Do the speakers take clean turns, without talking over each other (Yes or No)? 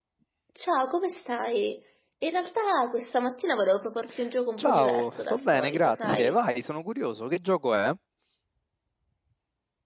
No